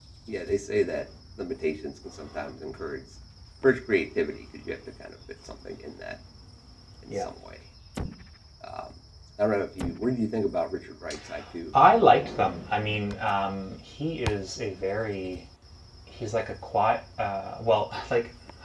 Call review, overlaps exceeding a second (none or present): none